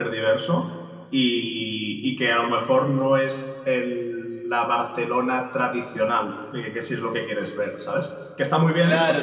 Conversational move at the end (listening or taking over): taking over